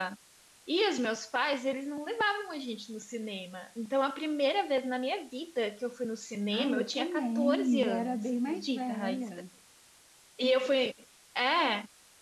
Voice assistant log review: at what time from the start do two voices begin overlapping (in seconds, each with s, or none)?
6.5 s